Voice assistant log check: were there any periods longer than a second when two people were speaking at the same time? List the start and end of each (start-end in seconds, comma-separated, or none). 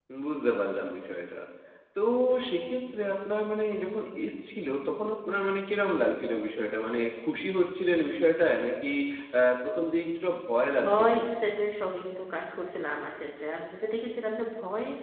none